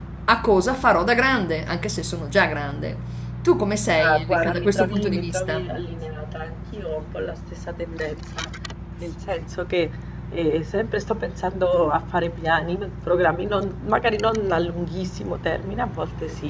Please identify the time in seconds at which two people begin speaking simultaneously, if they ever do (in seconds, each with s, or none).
4.0 s